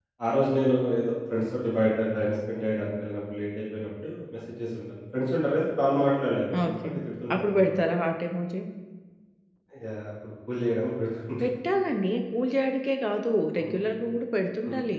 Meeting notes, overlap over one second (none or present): none